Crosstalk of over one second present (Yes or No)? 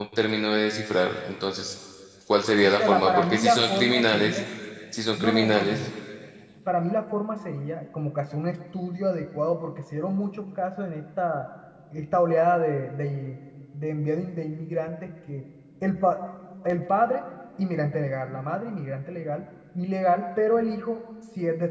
Yes